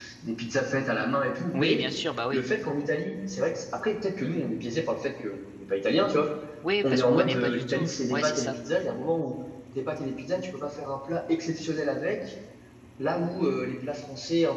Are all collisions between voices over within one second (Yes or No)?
No